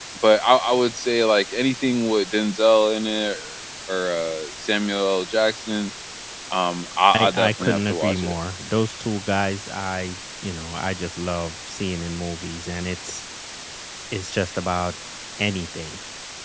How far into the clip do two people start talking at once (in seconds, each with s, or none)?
7.1 s